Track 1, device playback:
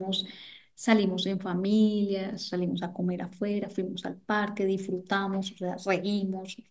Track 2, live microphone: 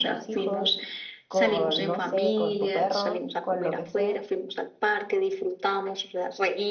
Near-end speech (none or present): present